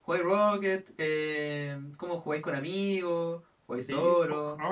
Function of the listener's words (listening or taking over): taking over